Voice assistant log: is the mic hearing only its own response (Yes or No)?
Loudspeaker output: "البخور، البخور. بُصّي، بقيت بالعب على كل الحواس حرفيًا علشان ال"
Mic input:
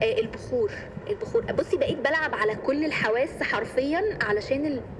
Yes